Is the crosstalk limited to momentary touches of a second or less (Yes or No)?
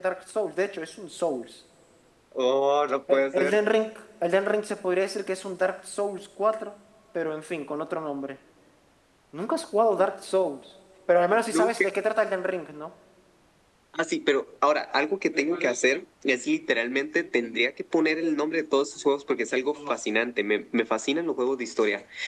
Yes